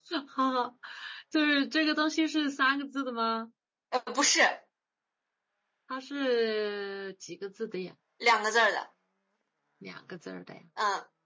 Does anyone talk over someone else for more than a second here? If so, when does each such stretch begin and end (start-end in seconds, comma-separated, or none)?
none